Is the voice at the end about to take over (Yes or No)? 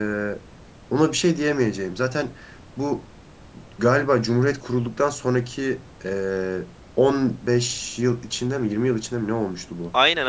Yes